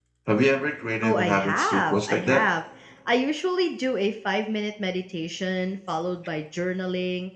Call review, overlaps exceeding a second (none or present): present